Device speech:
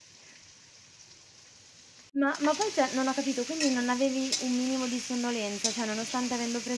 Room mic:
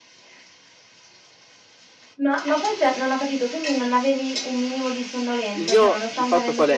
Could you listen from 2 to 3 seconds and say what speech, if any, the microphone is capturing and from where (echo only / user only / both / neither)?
echo only